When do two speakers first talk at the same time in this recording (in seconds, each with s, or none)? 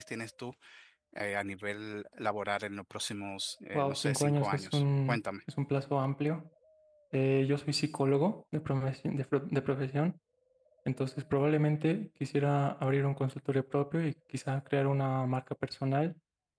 3.7 s